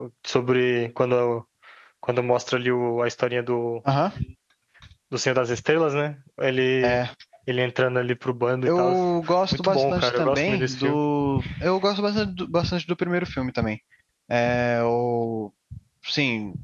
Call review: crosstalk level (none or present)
present